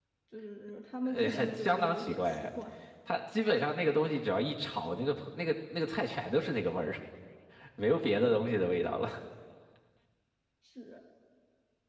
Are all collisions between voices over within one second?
No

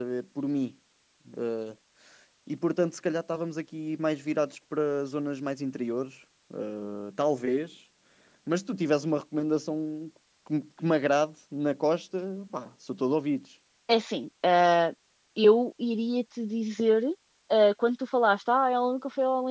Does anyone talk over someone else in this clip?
No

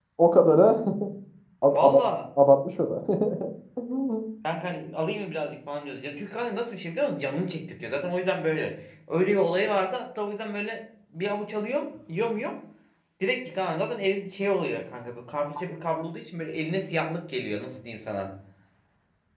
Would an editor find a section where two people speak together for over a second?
No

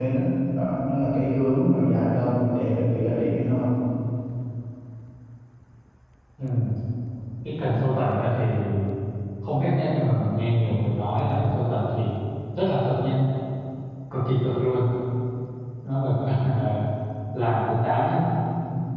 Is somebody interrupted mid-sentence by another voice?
No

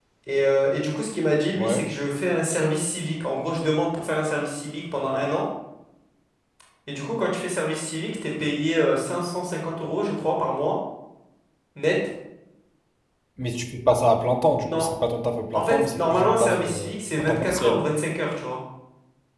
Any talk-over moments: Yes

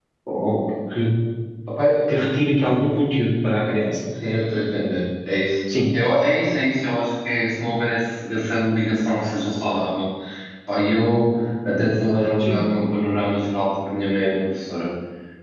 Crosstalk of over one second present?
No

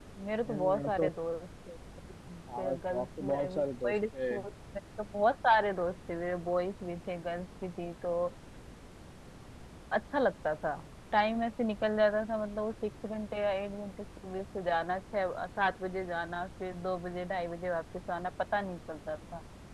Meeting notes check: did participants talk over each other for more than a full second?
Yes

